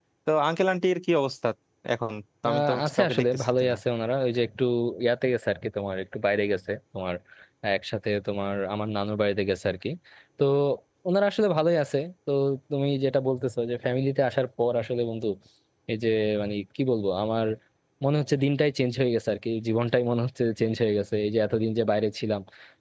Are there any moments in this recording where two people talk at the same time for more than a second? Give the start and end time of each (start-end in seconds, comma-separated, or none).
2.5-3.8